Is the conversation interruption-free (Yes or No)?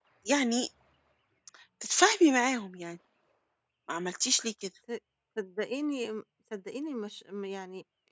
Yes